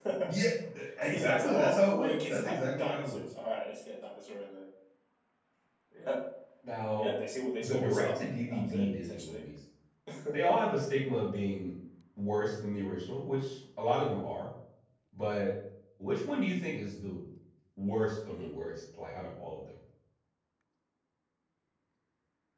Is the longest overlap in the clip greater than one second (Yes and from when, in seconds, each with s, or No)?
Yes, from 1.1 s